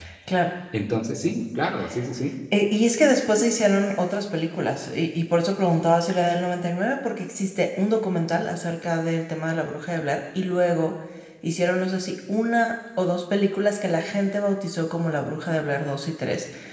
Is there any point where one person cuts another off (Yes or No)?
No